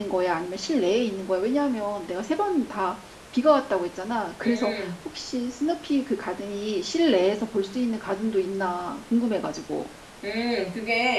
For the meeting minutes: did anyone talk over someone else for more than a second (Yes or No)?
No